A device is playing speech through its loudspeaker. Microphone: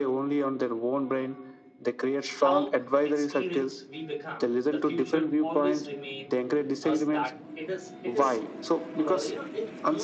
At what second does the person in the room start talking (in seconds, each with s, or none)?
2.4 s